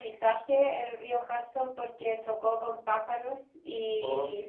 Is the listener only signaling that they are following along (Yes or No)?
Yes